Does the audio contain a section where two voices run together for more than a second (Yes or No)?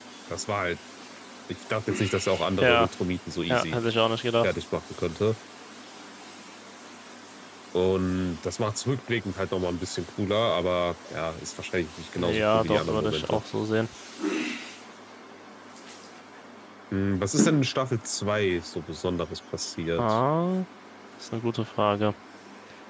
Yes